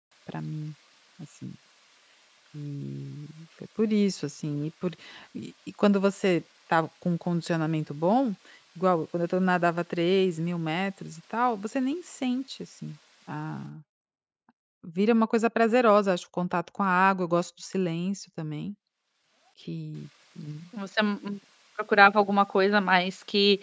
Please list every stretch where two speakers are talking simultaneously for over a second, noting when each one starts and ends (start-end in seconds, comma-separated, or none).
none